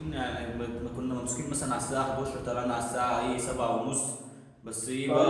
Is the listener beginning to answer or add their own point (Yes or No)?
Yes